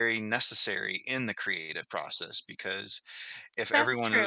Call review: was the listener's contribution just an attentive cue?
Yes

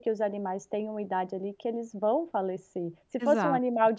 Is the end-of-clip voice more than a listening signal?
No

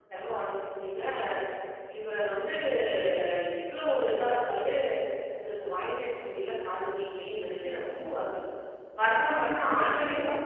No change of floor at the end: No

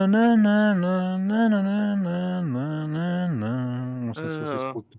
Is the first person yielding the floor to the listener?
Yes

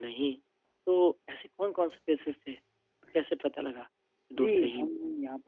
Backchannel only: No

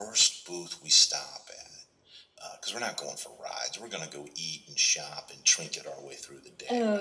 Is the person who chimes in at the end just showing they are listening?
No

